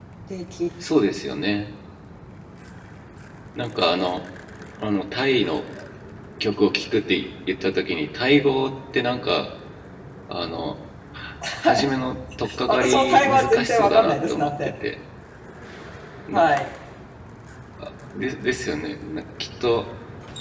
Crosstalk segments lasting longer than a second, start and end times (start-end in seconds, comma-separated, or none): 12.7-14.5